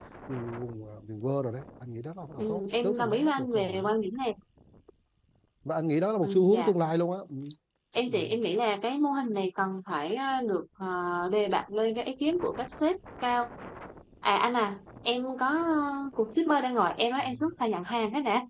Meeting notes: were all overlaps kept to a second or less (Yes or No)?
No